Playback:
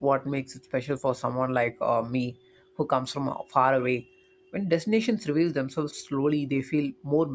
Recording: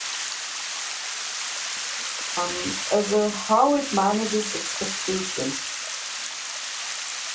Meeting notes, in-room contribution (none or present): present